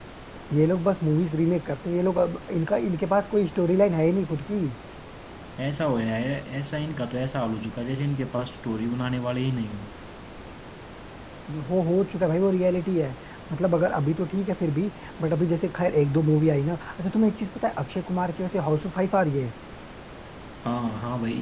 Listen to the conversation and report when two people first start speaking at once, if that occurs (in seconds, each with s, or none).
none